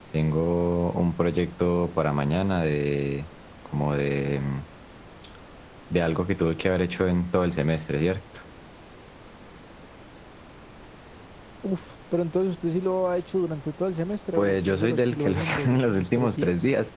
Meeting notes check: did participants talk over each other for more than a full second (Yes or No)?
Yes